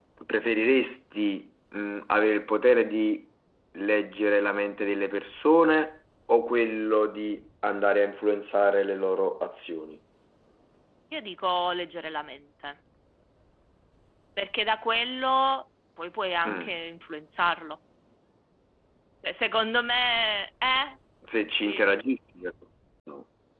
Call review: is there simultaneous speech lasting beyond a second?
No

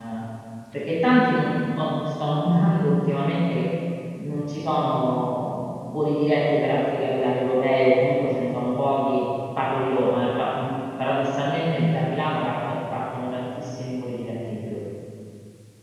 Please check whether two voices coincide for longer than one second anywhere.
No

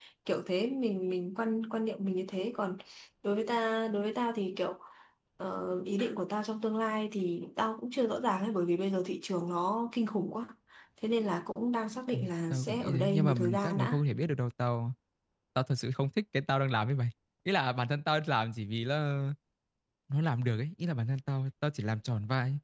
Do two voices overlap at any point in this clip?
Yes, from 12.1 s

